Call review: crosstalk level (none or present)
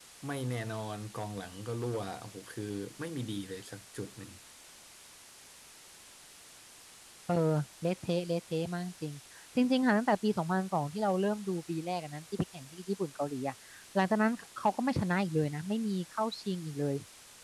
none